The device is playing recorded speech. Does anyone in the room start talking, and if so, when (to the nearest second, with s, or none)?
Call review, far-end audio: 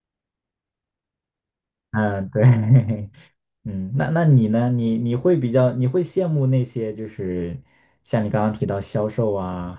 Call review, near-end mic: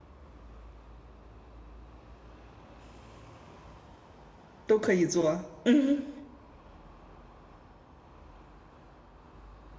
5 s